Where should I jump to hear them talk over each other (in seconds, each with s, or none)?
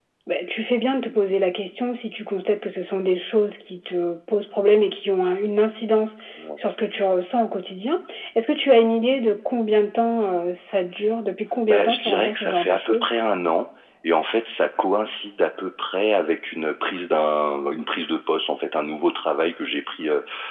11.7 s